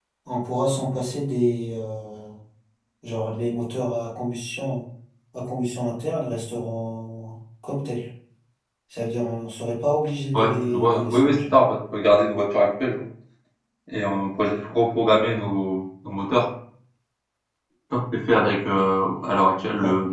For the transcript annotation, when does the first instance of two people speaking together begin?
10.3 s

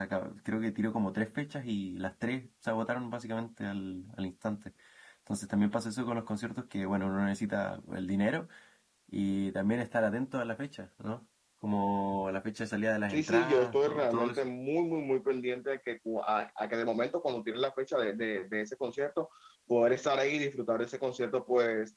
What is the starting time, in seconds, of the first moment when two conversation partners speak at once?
13.1 s

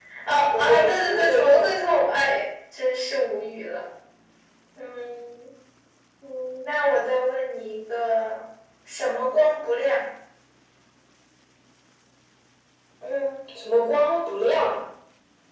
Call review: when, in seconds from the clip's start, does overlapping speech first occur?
0.5 s

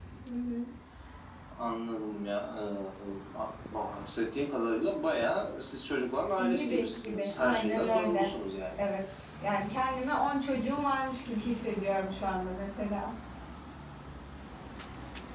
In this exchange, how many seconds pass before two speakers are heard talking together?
6.4 s

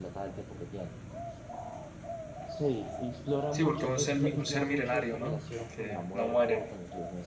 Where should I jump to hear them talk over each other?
3.5 s

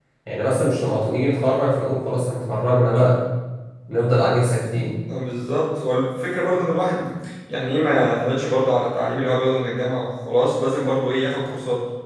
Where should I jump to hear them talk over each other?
none

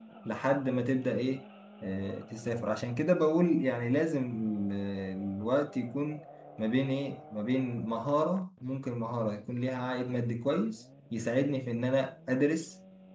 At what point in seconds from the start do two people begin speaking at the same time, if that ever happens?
none

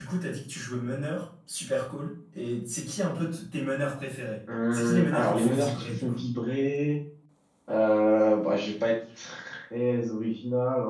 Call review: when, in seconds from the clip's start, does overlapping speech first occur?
4.5 s

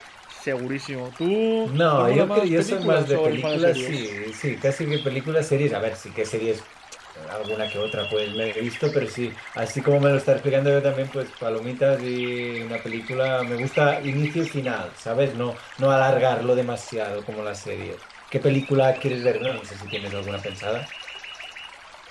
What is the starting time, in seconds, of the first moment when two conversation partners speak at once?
1.6 s

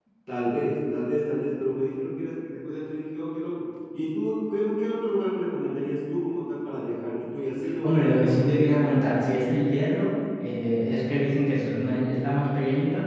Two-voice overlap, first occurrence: 7.8 s

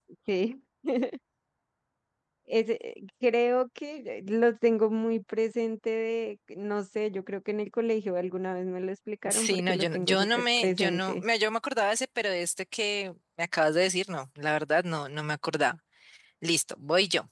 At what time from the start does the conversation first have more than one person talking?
9.2 s

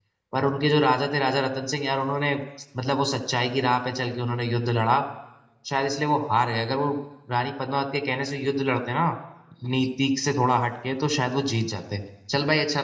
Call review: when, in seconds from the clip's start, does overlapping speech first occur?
none

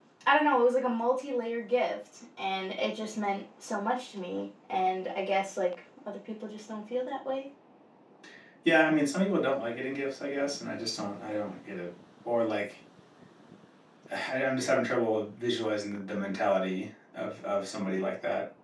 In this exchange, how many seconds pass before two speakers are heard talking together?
none

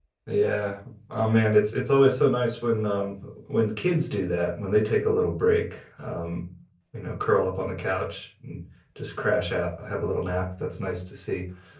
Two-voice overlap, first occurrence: none

